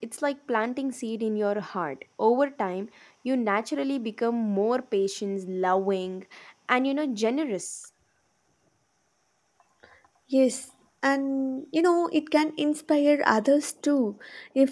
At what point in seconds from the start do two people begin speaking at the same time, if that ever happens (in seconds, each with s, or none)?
none